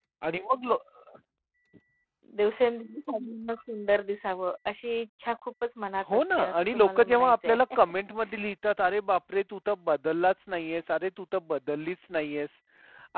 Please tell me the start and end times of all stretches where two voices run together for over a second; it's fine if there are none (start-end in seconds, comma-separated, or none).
6.1-7.6